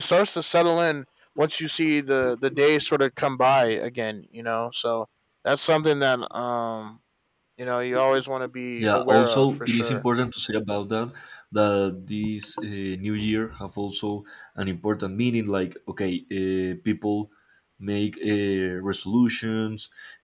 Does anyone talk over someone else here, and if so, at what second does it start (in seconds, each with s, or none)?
8.8 s